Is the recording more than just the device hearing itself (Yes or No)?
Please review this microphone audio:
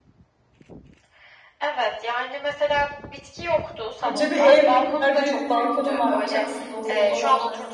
Yes